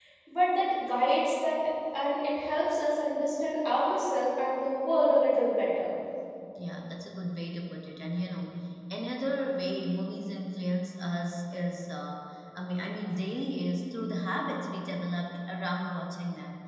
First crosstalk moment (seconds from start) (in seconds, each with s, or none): none